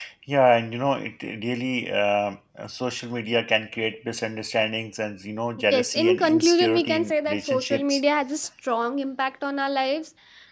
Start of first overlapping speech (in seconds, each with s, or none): 5.6 s